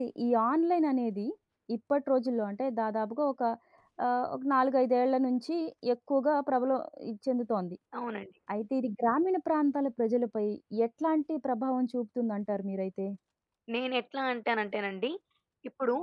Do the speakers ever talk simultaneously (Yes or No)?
No